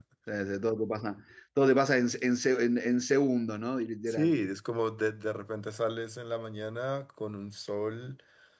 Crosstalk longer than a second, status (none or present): none